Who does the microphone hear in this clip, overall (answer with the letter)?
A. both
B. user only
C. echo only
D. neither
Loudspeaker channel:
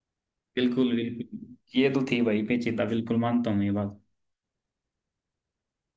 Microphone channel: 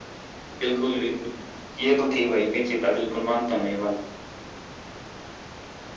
C